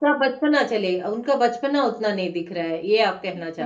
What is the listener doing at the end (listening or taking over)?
taking over